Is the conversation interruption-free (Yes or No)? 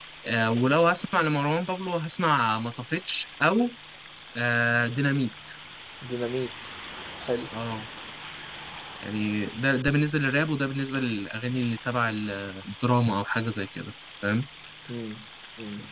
Yes